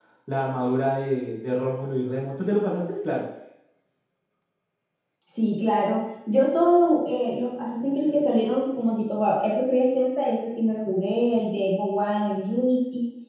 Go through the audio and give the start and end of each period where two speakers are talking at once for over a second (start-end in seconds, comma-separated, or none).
none